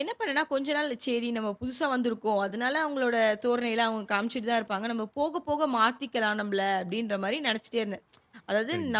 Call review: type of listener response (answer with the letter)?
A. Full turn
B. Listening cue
B